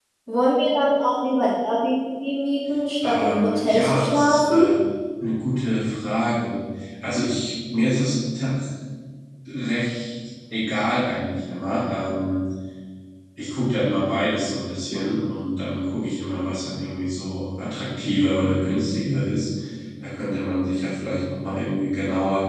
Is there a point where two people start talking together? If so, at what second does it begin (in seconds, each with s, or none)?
3.0 s